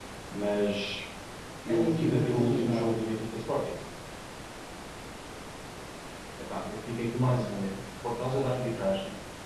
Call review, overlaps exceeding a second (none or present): present